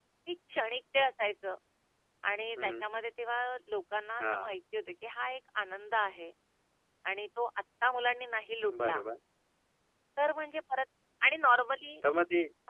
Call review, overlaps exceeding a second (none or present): none